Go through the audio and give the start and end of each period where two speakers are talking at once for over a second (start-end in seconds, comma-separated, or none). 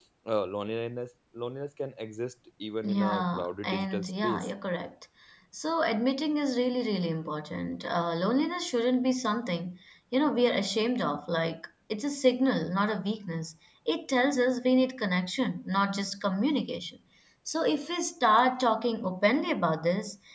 2.8-4.5